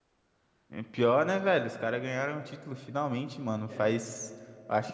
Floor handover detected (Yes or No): No